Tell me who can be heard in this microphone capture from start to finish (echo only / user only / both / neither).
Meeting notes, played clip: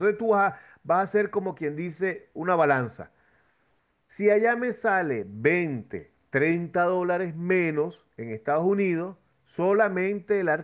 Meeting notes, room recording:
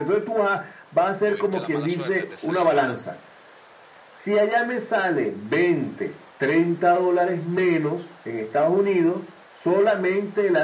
both